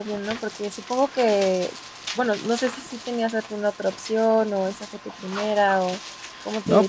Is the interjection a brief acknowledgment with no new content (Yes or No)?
No